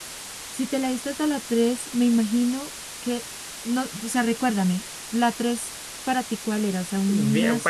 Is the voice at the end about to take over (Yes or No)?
Yes